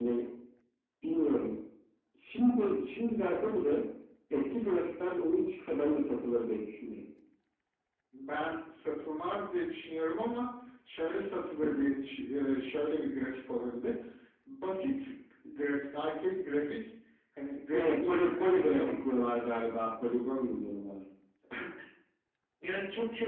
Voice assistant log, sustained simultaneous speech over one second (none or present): present